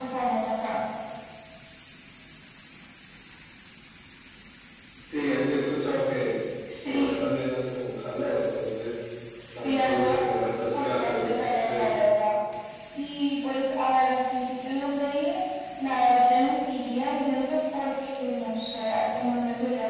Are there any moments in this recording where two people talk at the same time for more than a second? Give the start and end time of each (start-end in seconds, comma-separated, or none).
10.8-12.0